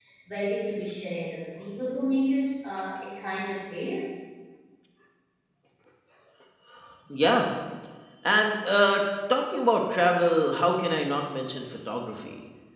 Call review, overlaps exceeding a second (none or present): none